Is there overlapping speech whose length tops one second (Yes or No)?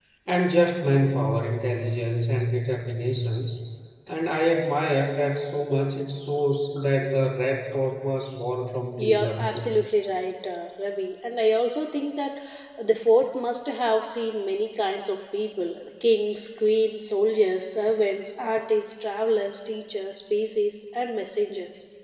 No